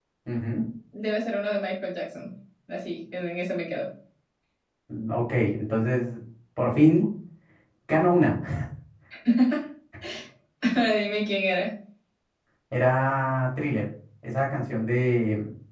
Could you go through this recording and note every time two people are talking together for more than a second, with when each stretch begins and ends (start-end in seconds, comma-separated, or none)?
none